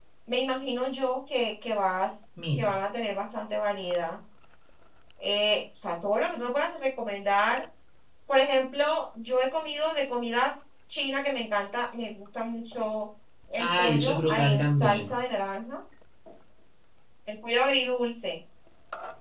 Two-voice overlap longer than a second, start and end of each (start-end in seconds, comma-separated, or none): 13.6-15.1